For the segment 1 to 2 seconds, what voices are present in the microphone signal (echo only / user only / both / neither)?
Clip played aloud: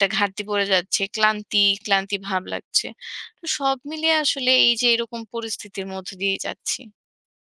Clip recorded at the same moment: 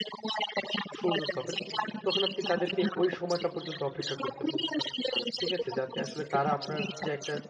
both